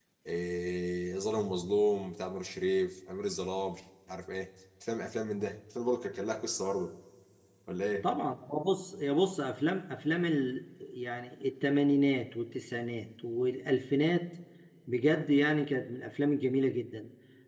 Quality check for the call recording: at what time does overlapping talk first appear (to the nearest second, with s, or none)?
none